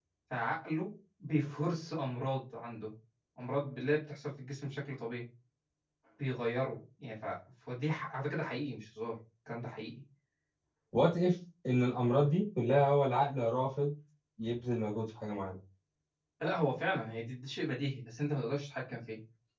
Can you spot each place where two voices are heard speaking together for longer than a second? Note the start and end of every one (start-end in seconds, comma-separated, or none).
none